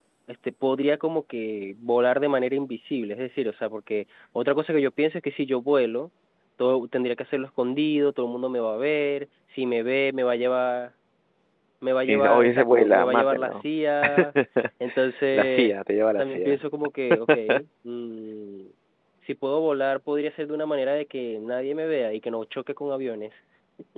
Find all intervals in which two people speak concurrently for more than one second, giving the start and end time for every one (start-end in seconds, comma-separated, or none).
12.0-13.6